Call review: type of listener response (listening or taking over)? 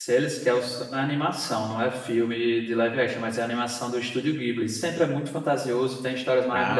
listening